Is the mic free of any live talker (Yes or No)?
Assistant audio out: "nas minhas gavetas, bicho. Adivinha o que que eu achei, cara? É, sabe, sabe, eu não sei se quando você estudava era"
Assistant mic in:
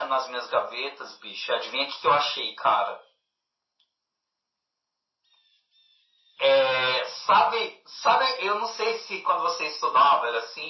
Yes